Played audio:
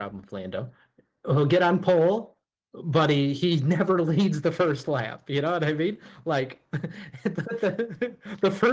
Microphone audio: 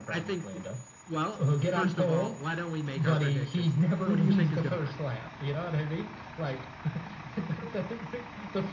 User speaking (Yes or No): Yes